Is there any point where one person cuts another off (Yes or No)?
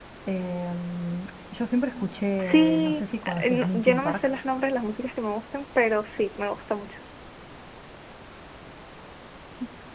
Yes